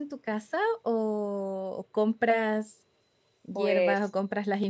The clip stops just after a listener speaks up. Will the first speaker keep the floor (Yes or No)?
Yes